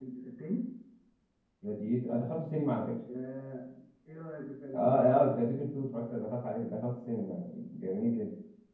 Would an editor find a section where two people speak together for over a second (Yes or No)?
No